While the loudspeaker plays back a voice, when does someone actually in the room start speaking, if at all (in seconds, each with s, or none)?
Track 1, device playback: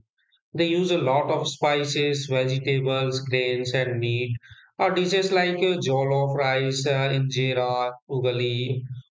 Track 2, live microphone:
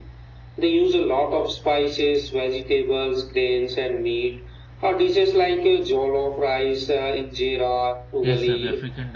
8.2 s